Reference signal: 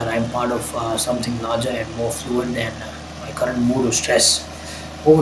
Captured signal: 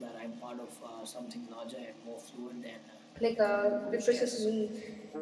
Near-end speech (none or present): present